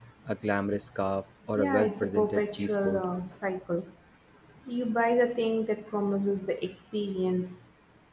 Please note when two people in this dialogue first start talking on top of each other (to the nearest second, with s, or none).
2 s